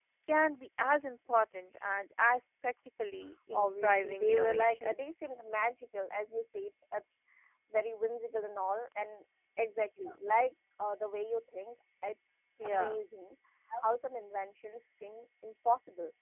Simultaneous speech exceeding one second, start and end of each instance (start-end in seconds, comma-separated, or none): 3.5-4.9